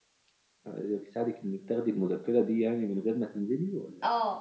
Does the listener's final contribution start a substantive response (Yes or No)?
Yes